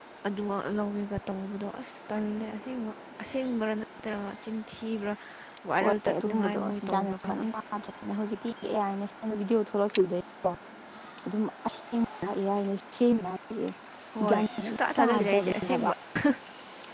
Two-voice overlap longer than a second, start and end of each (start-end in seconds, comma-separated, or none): 5.8-7.5, 14.3-15.9